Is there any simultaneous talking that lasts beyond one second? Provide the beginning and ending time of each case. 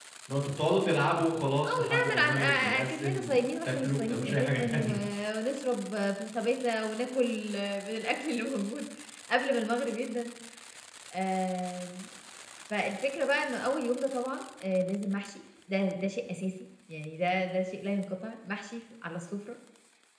1.6-4.9

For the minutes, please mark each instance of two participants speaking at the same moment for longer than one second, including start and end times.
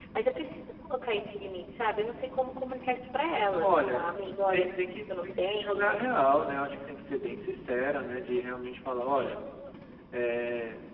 4.5-6.0

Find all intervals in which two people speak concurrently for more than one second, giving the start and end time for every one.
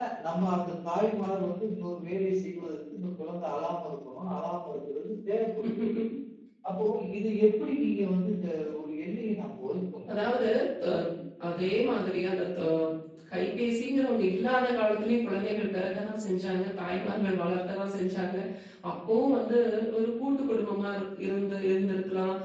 none

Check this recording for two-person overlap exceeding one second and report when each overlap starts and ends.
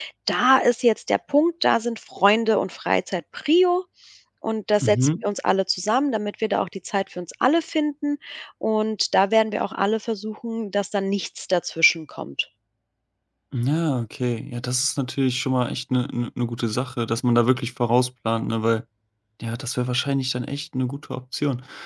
none

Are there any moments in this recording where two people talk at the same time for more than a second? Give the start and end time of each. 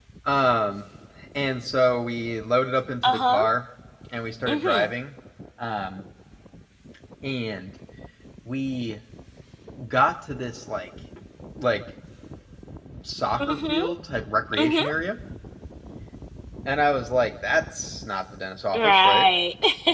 none

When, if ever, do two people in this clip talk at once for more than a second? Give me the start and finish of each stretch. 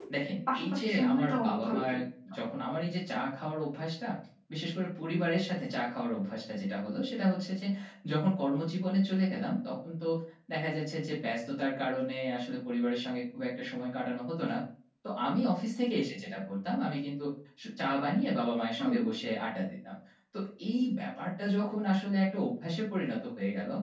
0.6-1.9

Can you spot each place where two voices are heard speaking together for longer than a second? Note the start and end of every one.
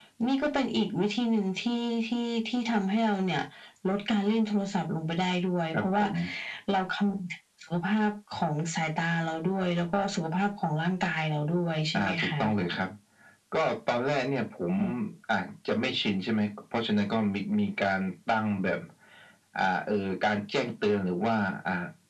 none

